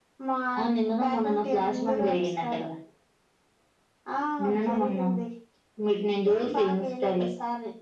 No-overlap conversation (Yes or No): No